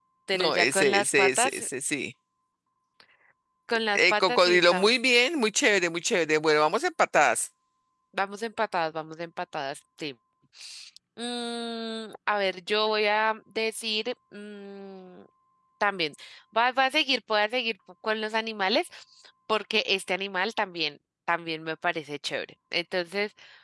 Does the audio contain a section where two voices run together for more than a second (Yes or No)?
Yes